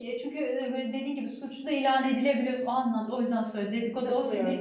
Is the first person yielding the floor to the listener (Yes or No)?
Yes